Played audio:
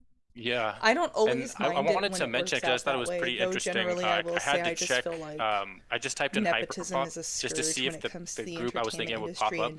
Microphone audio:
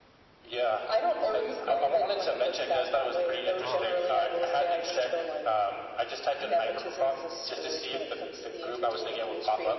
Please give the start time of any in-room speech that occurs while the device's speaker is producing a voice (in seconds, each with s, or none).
3.6 s